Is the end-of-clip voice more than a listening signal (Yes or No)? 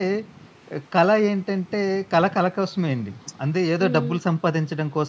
No